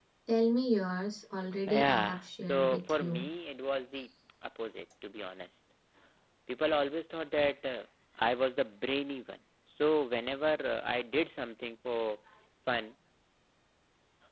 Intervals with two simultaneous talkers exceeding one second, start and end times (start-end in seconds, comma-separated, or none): 1.7-3.3